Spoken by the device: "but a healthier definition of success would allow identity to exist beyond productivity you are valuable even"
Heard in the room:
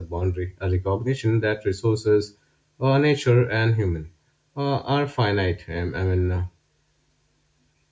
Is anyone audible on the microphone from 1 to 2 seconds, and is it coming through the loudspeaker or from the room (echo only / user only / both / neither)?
user only